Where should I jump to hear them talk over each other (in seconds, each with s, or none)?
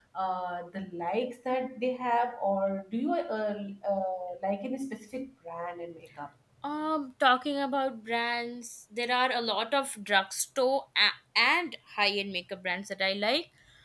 none